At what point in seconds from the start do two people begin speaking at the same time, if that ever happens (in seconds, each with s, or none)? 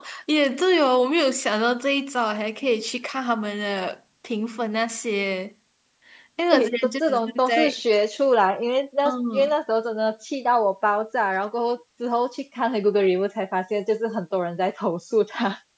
6.5 s